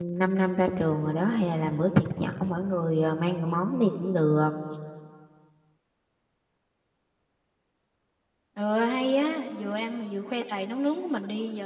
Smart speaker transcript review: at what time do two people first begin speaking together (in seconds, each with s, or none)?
none